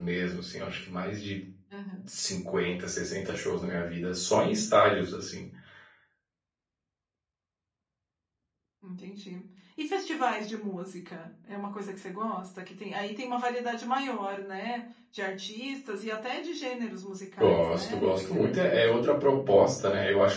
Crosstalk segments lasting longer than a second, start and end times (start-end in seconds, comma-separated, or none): 17.4-18.9